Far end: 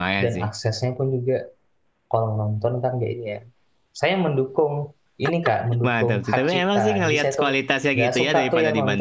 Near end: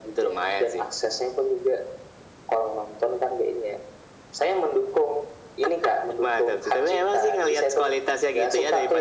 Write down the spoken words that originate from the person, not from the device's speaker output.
none

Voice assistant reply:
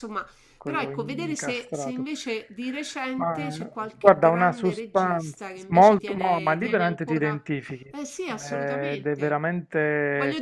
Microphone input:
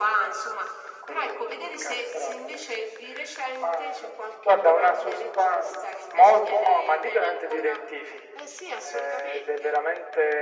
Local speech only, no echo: none

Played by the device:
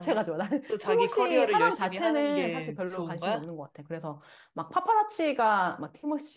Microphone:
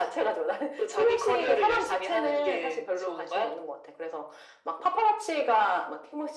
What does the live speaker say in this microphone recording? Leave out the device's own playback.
none

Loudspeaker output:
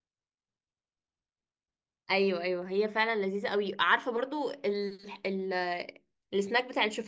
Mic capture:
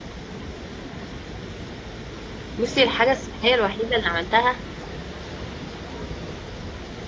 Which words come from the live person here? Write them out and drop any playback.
بصي الحاجة الصحية الوحيدة اللي عملتها

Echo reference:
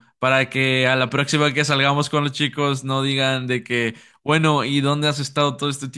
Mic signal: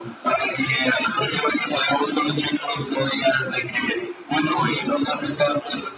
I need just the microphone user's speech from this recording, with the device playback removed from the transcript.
none

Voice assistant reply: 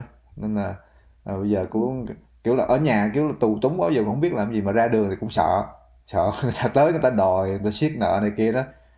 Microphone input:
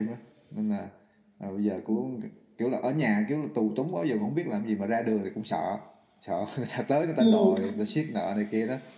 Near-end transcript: ừ.

